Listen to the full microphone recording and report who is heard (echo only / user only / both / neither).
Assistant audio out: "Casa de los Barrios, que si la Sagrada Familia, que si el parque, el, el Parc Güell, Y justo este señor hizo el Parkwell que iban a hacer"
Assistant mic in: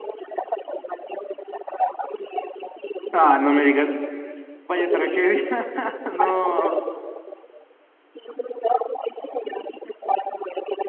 both